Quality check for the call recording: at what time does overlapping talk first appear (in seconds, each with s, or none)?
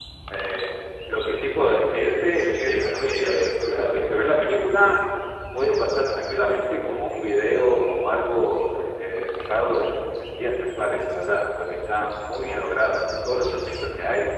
2.3 s